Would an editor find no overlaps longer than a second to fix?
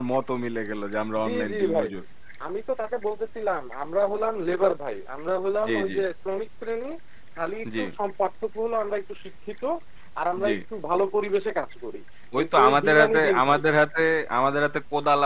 No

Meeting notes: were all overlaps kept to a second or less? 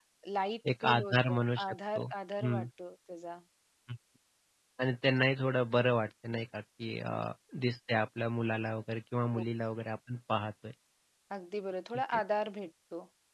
No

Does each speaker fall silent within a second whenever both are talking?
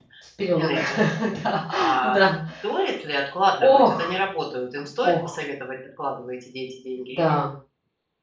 Yes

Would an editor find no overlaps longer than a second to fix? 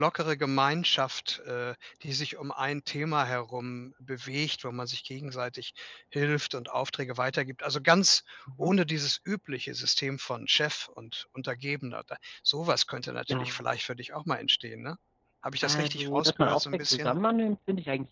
No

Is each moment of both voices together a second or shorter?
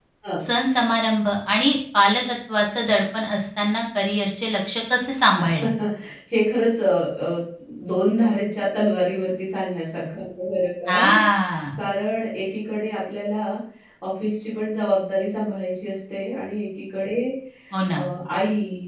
Yes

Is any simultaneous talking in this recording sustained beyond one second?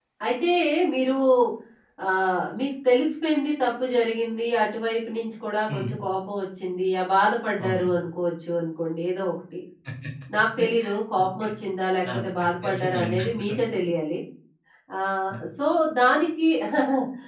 Yes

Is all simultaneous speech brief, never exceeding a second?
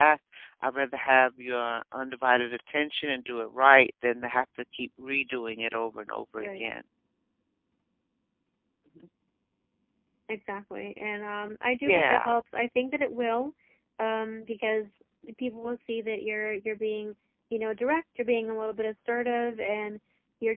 Yes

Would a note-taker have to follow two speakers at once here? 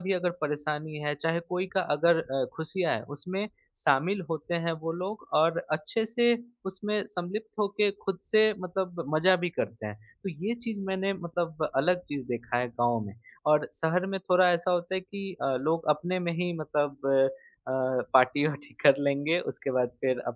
No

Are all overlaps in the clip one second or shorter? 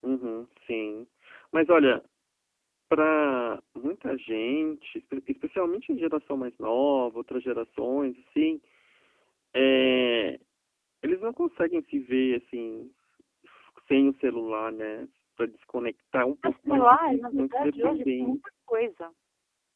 No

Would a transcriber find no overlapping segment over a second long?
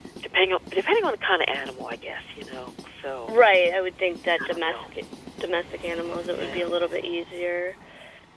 Yes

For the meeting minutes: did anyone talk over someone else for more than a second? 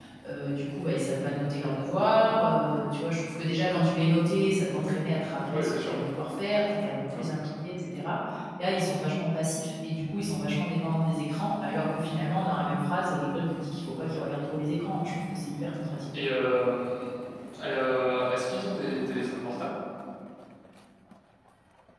No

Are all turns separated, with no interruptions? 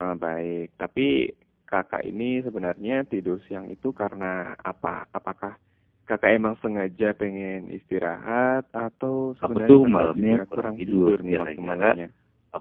No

